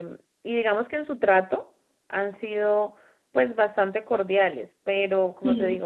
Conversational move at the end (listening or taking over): listening